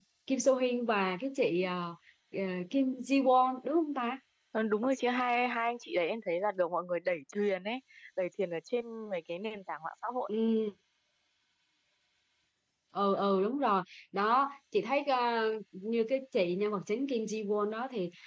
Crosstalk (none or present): none